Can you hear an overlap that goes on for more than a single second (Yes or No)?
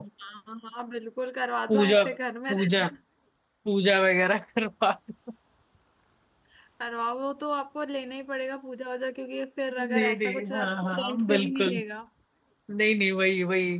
Yes